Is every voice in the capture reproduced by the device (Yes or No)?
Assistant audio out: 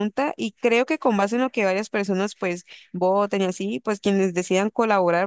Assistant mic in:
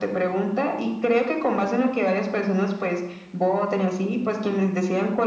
Yes